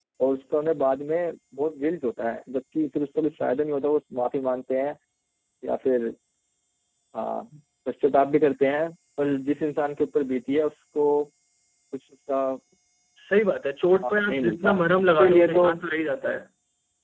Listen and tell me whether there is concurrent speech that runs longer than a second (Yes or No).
Yes